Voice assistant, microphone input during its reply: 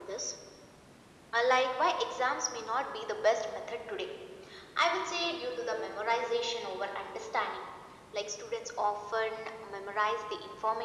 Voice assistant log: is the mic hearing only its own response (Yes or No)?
Yes